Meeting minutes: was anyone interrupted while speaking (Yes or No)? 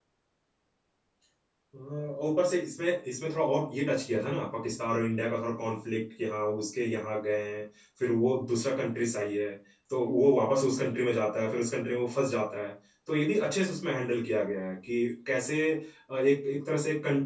No